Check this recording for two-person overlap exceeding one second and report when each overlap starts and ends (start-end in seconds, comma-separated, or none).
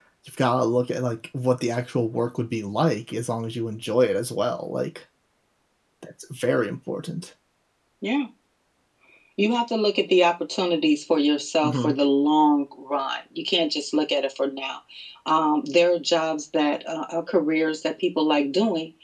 none